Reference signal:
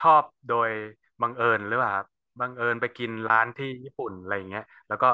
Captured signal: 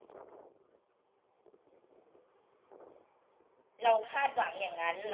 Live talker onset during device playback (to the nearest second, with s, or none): 4 s